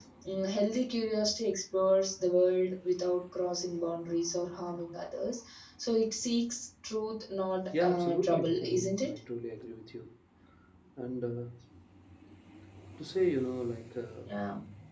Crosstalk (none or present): present